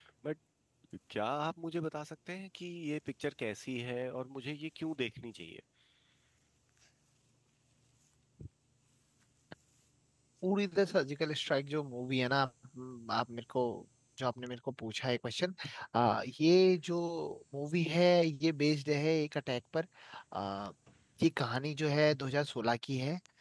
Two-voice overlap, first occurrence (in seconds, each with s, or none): none